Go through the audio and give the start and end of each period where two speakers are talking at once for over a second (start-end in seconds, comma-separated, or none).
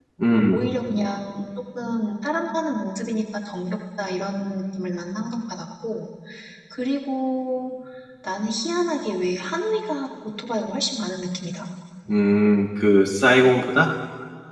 none